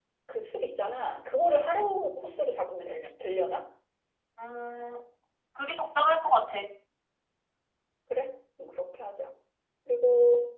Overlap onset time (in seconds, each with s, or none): none